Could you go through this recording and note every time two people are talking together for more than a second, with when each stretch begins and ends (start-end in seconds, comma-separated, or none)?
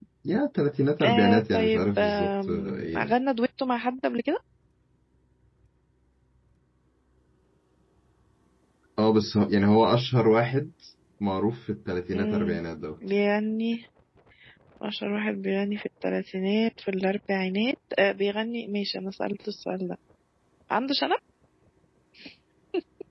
1.0-3.1